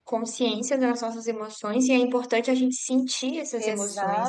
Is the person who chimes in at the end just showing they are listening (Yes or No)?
No